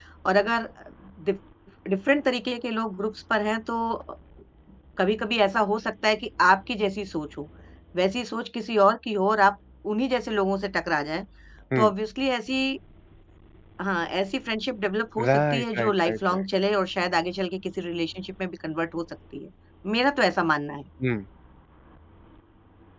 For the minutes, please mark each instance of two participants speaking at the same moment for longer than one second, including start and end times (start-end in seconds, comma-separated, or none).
15.2-16.4